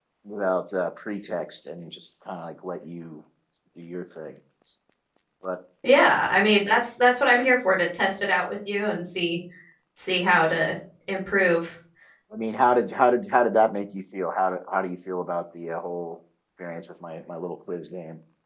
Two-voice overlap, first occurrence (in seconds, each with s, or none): none